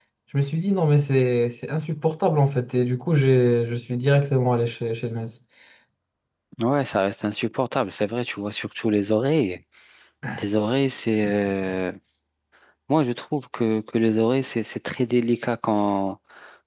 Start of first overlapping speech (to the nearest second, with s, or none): none